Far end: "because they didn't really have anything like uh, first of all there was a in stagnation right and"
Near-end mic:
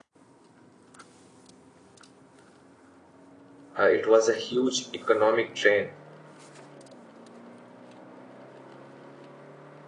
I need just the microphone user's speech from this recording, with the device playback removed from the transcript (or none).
uh, it was a huge economic drain.